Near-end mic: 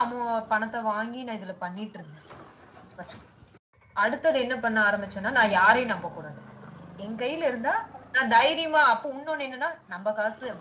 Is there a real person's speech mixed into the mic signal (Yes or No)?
No